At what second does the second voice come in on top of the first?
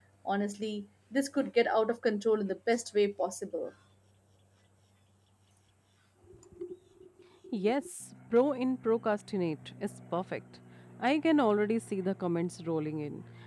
none

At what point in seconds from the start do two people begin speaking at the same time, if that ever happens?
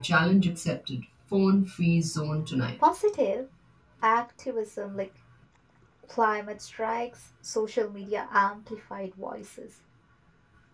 none

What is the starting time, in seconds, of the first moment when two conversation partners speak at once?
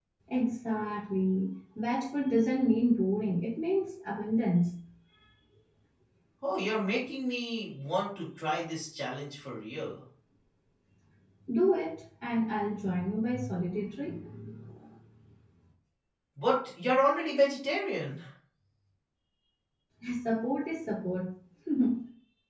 none

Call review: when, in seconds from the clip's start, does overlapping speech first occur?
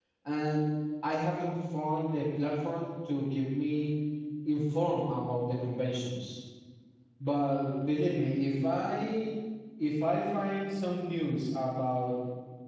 none

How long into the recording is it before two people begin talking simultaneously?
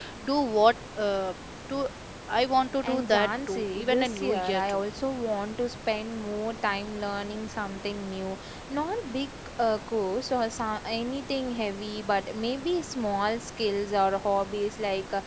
3 s

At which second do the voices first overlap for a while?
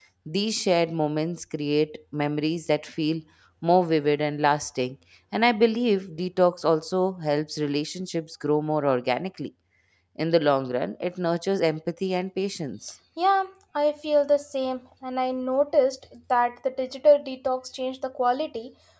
none

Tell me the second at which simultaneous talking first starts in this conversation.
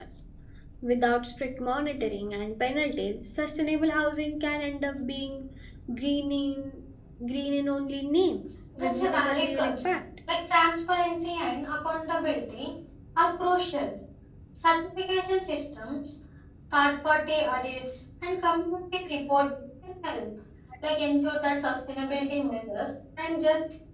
9 s

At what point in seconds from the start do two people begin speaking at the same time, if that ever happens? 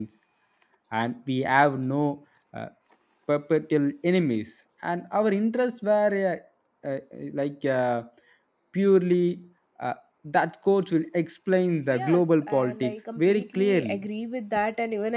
12 s

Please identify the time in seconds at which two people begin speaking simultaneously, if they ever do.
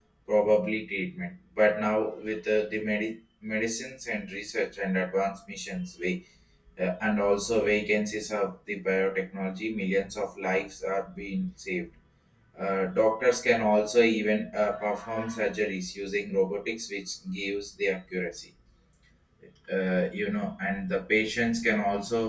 none

